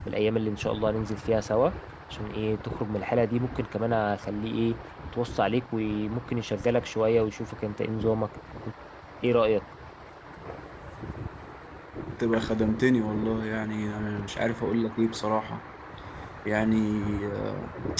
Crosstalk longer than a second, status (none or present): none